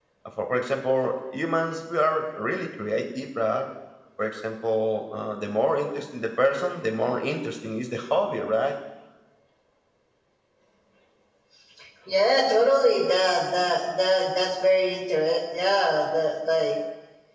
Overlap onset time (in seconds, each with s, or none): none